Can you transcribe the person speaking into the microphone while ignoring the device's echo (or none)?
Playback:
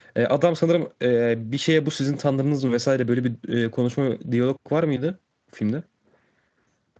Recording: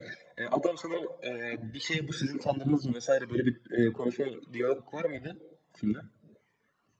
none